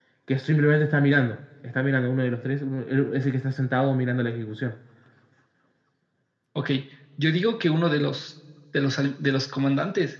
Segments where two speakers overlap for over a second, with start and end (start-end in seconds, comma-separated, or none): none